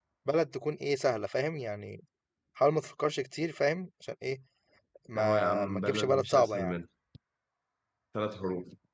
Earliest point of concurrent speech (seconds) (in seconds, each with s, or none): 5.2 s